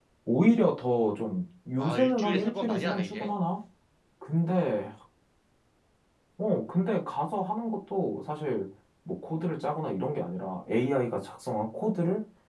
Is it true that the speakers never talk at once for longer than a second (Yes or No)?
No